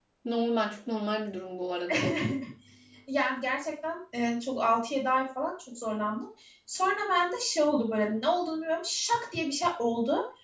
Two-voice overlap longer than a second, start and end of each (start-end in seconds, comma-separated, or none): none